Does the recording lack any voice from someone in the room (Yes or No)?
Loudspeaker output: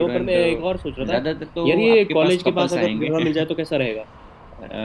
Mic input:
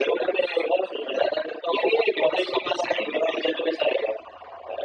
Yes